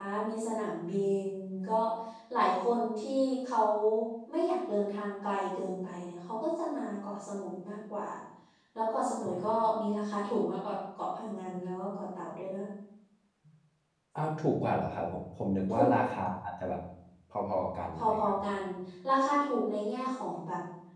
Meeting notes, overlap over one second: none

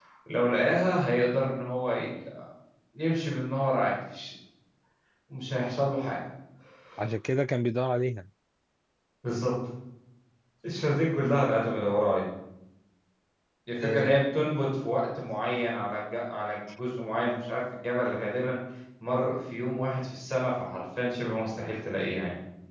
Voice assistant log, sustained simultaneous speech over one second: none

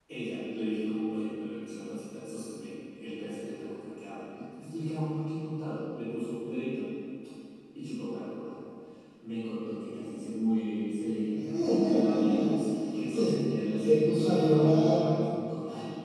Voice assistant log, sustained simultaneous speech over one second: present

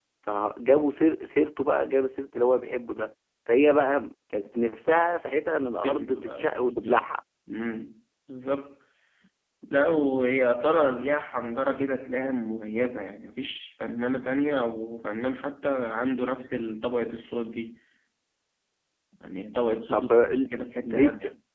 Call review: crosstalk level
present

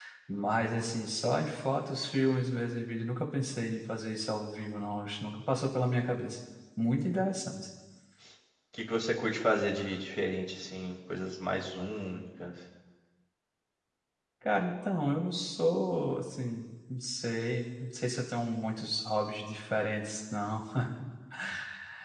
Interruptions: none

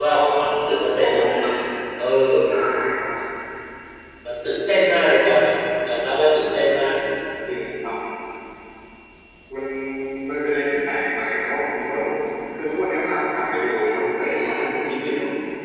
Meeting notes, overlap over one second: none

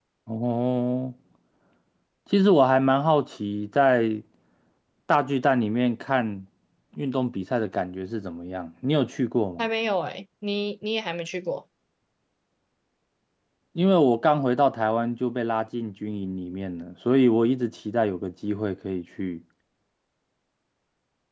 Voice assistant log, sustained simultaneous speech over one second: none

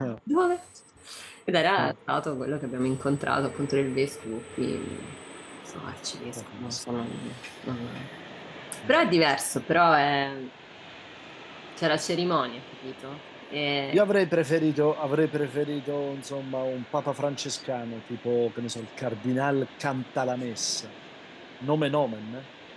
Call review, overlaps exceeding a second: none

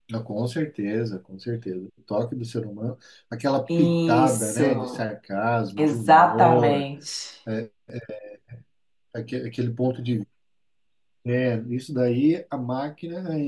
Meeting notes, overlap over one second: present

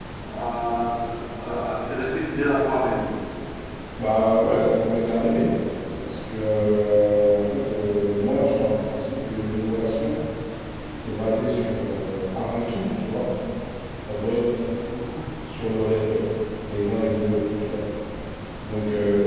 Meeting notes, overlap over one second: none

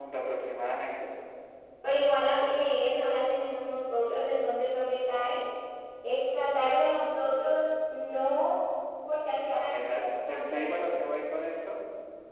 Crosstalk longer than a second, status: present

